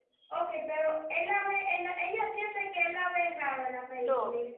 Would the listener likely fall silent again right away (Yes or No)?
No